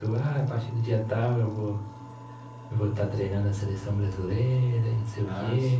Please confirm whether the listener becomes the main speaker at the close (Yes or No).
Yes